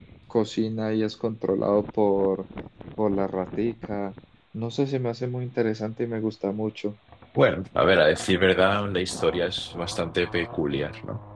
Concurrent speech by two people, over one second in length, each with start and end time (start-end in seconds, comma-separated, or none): none